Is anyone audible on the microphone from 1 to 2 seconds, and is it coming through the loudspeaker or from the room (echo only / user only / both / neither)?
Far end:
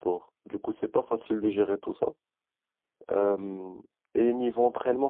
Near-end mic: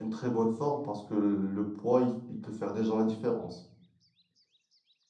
user only